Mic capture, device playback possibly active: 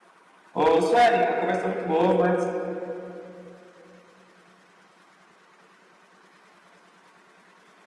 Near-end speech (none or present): present